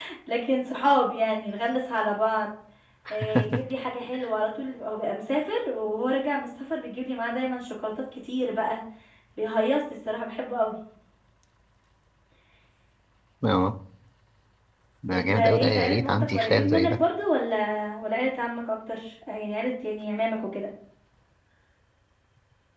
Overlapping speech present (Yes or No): Yes